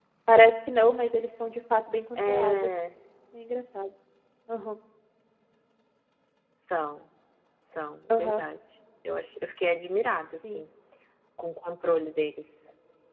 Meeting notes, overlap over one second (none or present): none